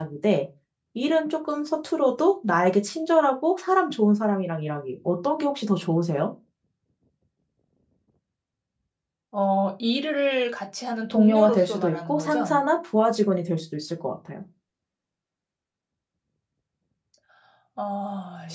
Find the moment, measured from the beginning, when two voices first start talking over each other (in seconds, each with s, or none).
11.1 s